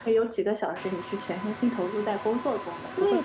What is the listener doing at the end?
taking over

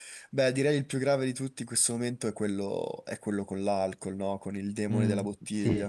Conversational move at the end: taking over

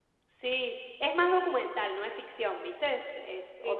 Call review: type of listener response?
taking over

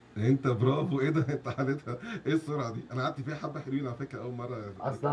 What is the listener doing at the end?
taking over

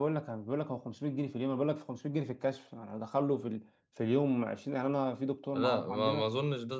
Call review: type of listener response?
taking over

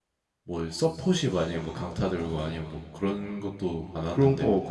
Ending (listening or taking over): taking over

